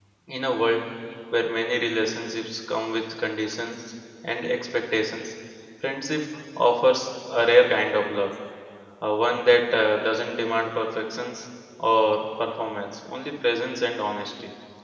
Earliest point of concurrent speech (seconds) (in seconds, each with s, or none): none